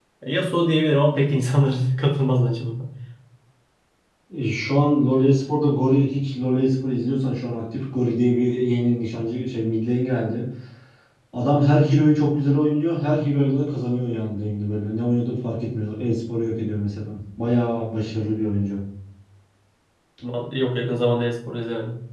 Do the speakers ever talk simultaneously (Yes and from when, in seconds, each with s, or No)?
No